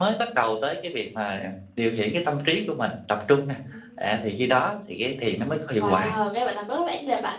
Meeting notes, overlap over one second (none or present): none